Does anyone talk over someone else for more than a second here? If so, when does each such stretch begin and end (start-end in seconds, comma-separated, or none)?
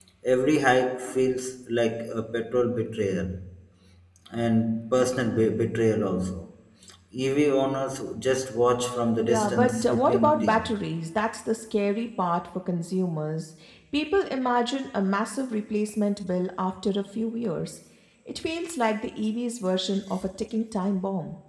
9.2-10.7